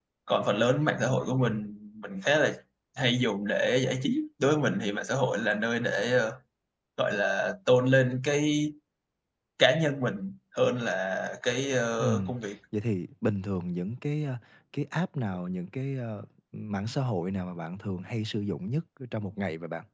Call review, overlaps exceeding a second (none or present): none